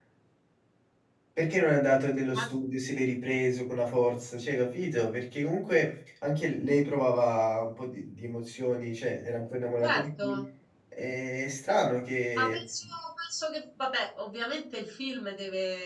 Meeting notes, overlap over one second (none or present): none